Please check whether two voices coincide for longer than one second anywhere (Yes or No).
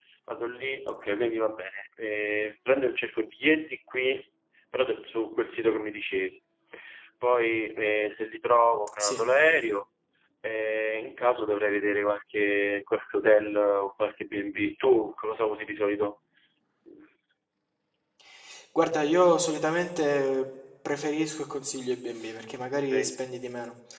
No